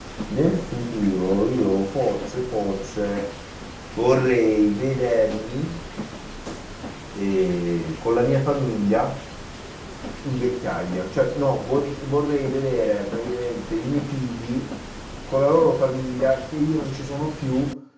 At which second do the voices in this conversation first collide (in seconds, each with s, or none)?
none